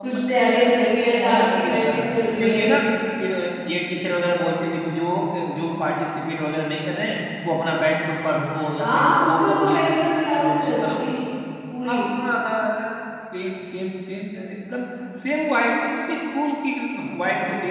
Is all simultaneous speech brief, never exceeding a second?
No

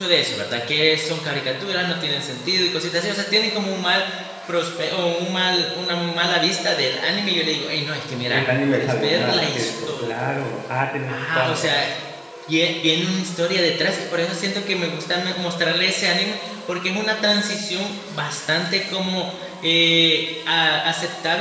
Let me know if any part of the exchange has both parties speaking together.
Yes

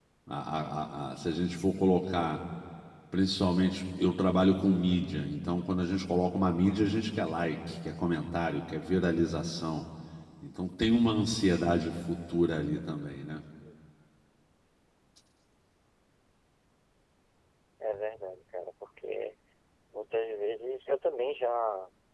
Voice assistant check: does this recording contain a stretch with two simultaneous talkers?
No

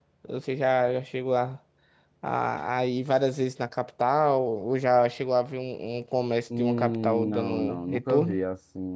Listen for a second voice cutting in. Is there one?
Yes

